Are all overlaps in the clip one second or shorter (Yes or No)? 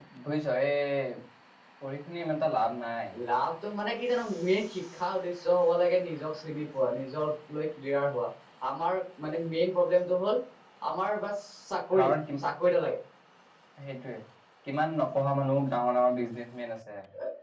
Yes